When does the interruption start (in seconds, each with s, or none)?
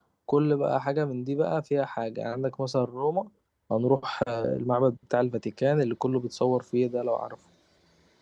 none